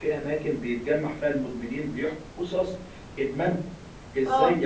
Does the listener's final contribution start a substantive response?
No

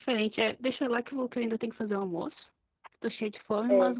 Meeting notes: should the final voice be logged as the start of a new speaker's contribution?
No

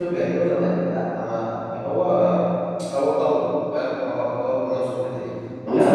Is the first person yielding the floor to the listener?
Yes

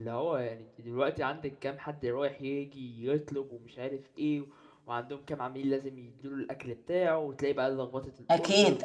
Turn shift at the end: No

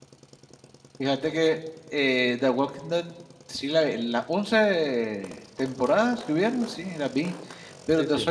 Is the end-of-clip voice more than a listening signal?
No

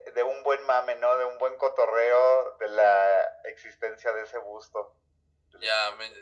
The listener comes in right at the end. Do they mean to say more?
Yes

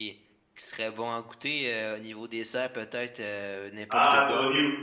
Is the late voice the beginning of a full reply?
Yes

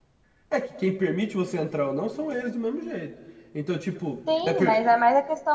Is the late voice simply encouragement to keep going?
No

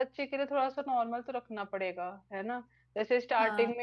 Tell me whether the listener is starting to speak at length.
No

